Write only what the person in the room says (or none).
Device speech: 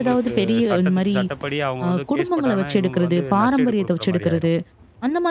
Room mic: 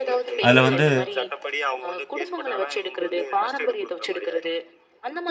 அதுல வந்து